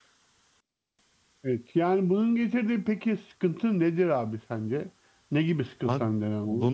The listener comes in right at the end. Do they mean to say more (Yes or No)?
Yes